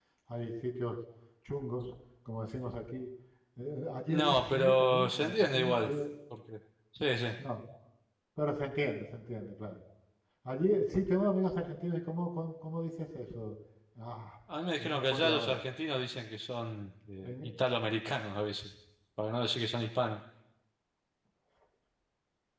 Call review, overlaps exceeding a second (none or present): present